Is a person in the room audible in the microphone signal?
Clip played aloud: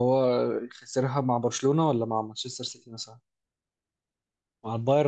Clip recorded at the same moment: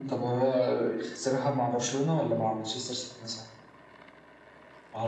No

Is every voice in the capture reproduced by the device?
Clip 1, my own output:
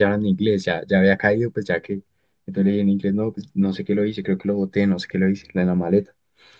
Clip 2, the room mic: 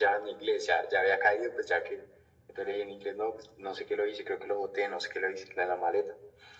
Yes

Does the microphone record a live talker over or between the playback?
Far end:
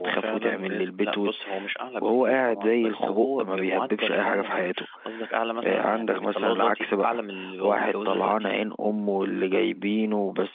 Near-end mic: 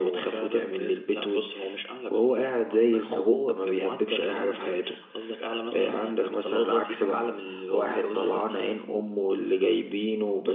No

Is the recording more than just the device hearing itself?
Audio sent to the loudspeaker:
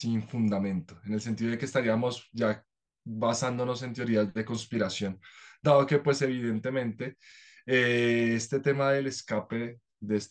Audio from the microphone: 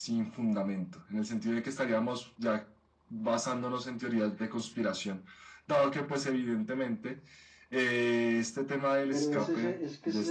Yes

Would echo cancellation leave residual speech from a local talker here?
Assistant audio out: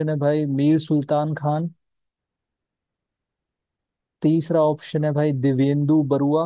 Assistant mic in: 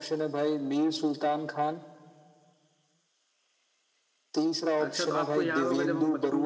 Yes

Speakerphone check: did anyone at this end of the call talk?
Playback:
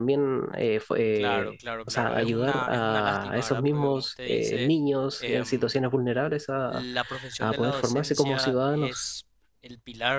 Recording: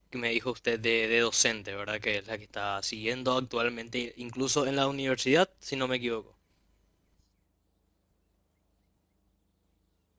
Yes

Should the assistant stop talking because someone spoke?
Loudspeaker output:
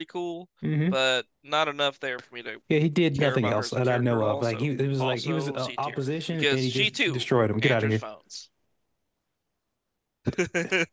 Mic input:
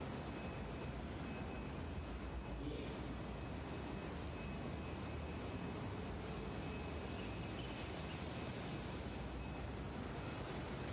No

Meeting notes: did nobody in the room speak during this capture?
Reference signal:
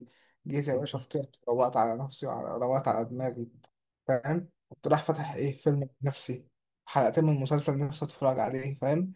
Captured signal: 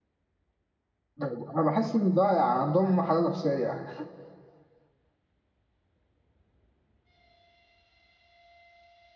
No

